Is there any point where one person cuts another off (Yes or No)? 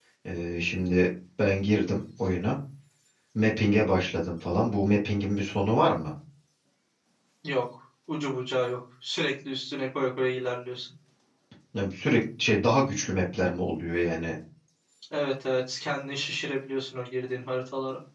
No